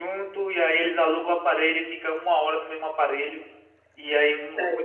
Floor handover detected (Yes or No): No